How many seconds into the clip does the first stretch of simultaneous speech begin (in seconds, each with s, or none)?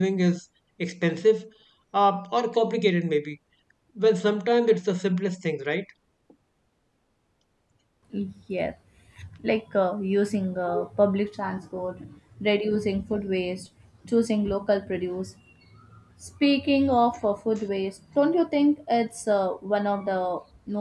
none